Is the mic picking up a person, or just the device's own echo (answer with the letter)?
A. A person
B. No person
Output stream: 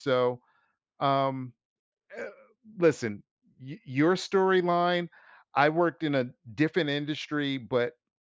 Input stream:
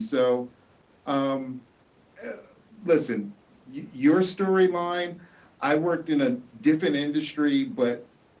B